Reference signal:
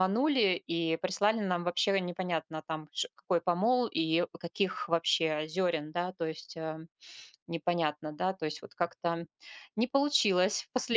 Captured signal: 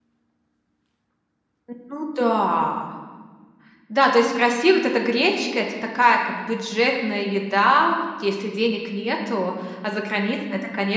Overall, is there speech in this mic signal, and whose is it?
user only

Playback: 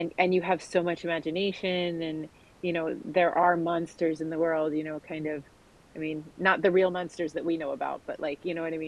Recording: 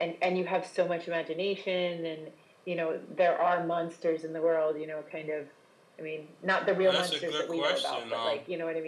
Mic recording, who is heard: both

